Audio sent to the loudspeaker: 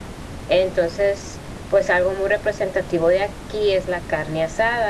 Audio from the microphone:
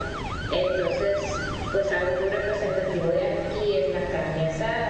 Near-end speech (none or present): none